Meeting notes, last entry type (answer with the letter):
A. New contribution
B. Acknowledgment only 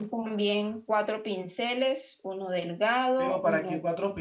A